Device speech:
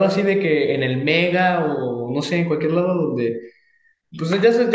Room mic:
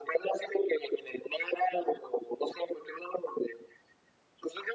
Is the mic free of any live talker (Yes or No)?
Yes